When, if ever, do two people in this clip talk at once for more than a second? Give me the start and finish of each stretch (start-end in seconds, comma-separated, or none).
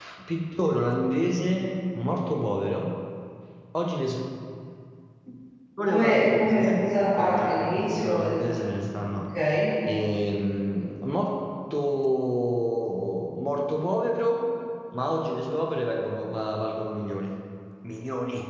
5.8-8.3